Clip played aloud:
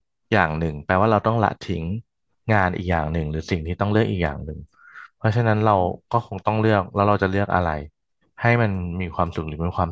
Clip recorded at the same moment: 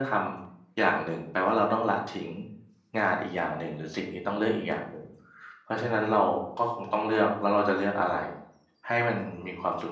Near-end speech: none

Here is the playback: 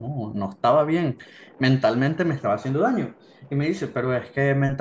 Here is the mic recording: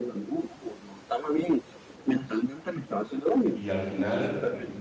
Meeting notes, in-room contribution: present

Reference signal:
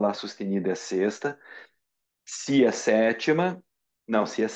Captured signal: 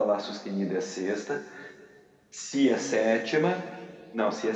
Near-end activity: none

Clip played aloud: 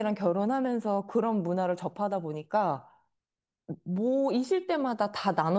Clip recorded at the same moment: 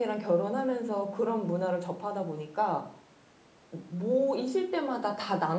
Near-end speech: none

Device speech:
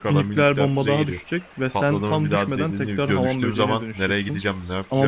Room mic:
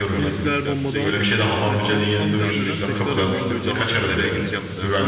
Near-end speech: present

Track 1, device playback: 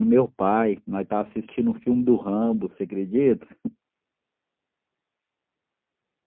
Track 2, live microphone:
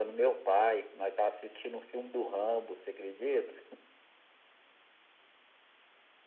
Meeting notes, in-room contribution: none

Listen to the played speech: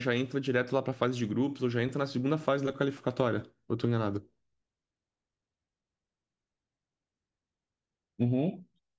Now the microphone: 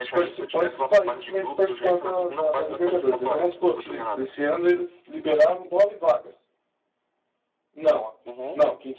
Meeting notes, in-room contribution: present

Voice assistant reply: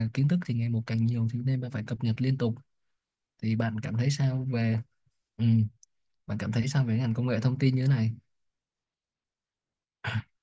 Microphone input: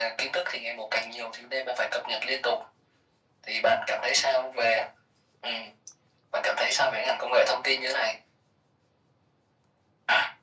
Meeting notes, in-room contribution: none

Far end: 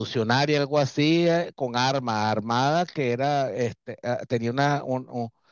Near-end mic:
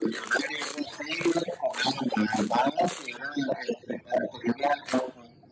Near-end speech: none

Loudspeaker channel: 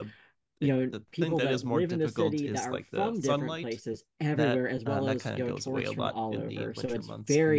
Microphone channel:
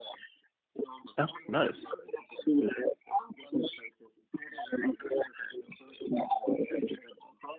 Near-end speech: present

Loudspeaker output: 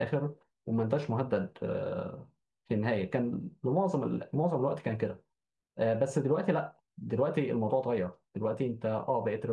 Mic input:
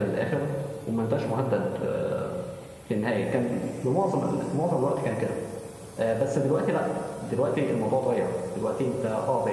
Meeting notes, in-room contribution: none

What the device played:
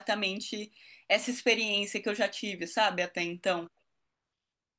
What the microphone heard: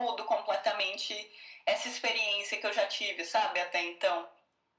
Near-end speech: none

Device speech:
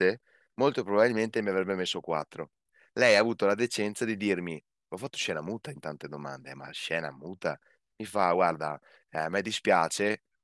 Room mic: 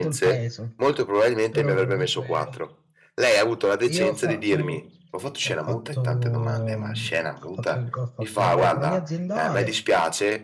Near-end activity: present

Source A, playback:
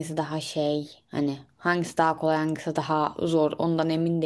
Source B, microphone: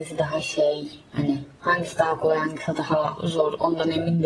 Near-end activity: none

